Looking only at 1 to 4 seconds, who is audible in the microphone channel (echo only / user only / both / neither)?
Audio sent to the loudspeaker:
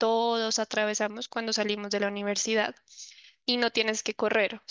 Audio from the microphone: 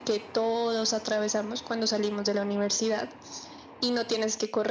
echo only